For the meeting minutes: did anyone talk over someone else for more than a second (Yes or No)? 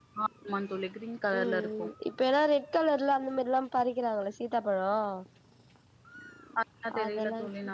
No